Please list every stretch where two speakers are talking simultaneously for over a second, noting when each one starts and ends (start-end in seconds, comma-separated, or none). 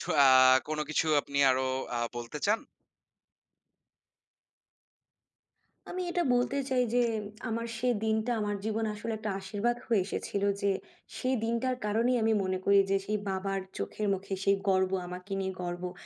none